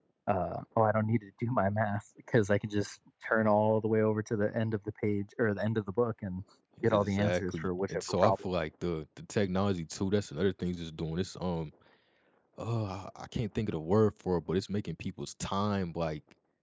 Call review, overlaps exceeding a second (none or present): present